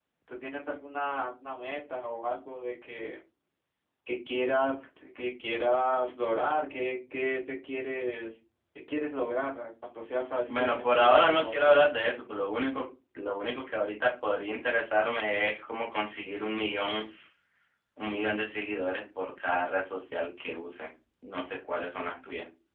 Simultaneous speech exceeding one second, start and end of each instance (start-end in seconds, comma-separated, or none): 10.5-11.8